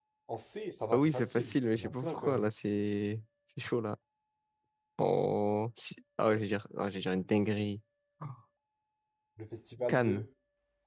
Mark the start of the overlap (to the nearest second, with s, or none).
1 s